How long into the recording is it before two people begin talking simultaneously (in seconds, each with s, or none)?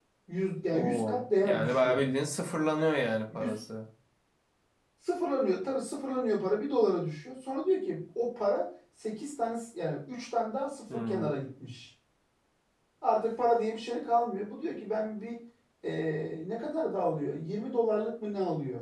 0.7 s